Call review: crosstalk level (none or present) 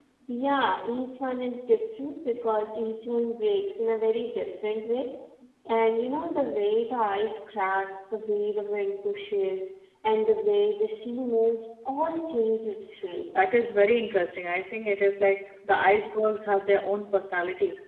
none